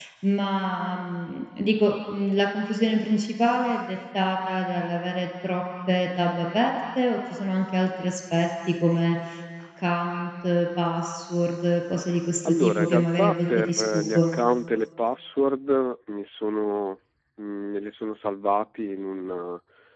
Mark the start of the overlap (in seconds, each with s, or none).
12.4 s